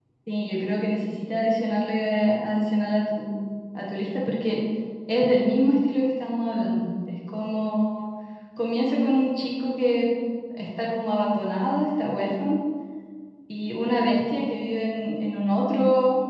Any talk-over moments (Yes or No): No